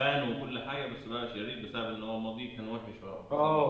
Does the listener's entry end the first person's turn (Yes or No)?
Yes